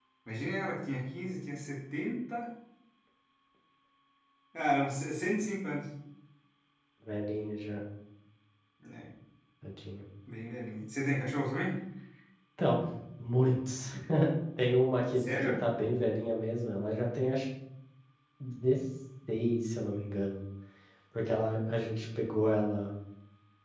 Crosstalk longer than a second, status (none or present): none